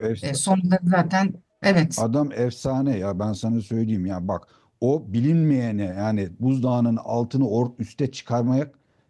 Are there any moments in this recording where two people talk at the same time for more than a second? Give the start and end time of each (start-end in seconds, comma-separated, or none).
none